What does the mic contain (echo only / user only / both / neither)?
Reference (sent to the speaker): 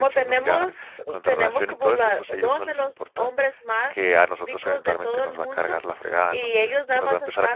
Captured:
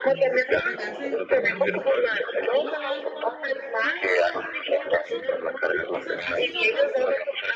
both